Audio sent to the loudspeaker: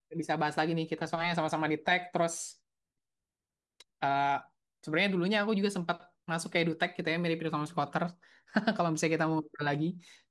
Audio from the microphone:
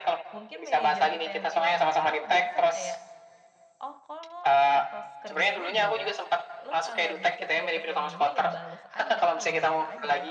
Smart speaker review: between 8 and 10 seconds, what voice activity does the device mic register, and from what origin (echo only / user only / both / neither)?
both